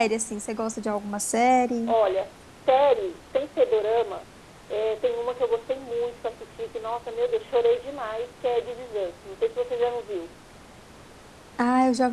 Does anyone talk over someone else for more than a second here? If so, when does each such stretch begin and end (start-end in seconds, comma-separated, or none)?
none